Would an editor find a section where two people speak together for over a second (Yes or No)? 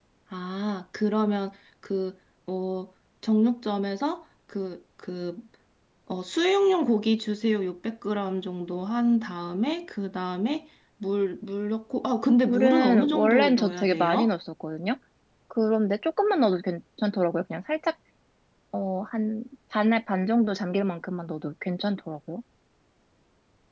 Yes